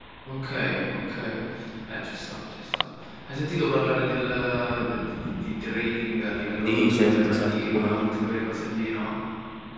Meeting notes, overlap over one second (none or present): present